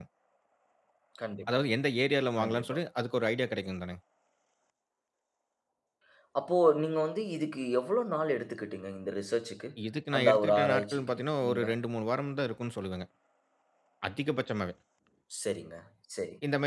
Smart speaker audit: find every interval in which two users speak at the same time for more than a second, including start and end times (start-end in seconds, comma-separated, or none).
10.2-11.6